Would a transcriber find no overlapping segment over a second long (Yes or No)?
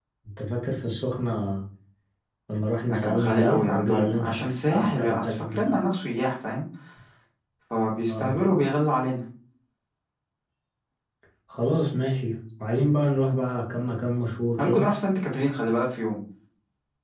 No